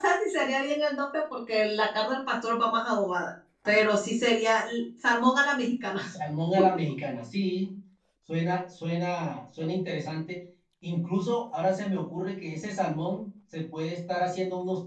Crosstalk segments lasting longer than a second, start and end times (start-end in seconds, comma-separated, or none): none